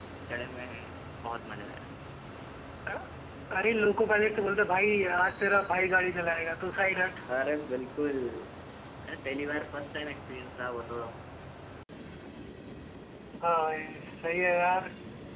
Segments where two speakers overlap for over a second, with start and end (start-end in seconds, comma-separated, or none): none